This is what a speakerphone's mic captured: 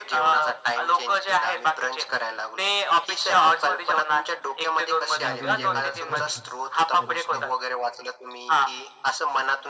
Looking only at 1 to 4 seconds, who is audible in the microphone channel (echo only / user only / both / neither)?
echo only